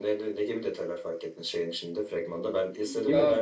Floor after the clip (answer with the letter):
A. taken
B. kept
B